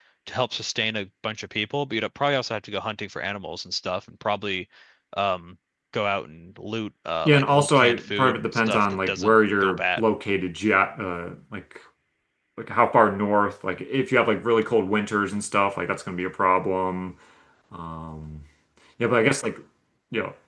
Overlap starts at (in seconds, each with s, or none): 7.2 s